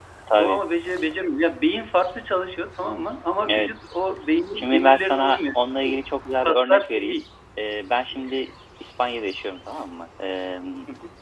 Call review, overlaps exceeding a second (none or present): present